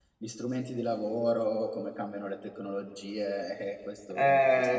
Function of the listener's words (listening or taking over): taking over